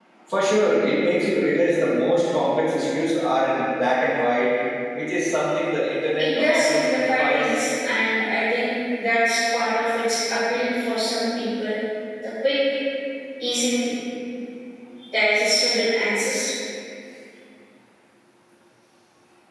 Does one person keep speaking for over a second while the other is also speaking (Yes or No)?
Yes